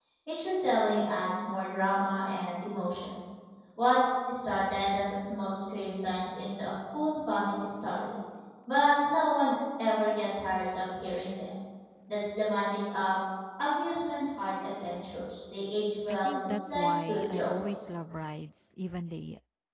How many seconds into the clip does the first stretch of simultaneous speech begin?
16.1 s

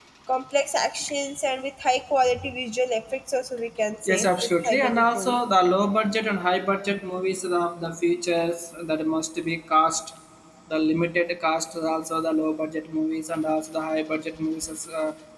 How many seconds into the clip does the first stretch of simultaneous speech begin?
4.1 s

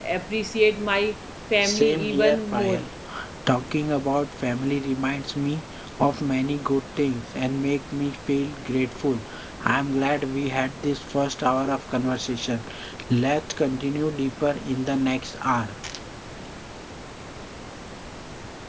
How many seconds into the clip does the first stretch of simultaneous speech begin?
1.6 s

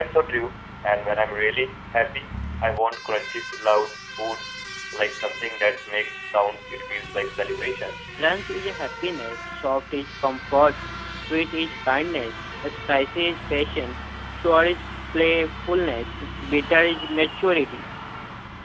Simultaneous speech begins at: none

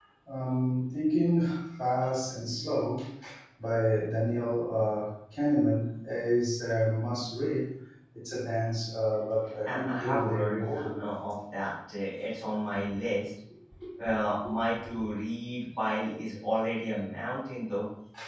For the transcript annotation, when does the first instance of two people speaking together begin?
9.6 s

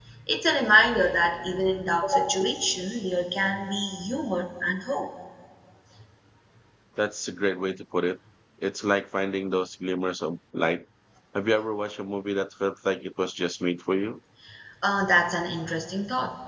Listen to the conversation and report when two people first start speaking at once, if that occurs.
none

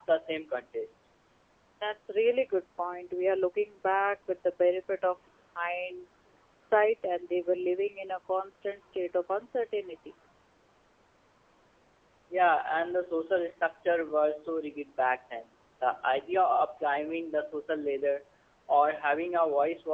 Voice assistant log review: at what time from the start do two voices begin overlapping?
none

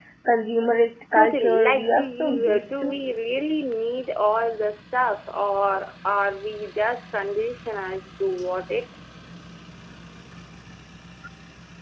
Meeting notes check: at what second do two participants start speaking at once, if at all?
1.1 s

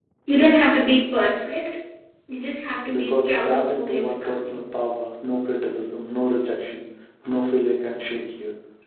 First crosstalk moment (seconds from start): 2.9 s

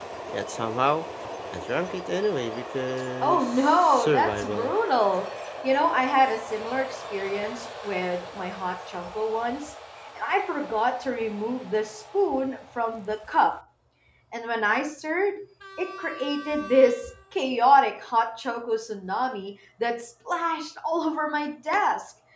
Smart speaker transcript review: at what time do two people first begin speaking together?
3.2 s

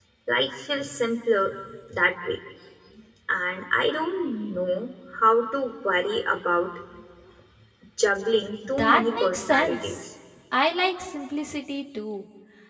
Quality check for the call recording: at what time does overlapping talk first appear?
8.8 s

